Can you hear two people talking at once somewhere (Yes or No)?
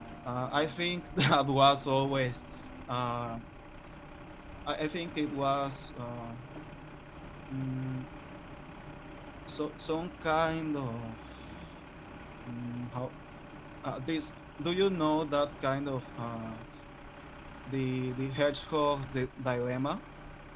No